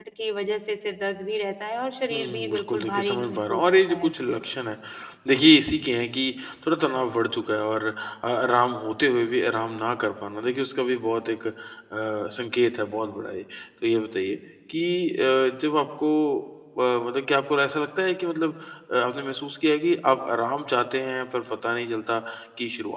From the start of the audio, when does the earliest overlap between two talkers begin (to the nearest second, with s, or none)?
2 s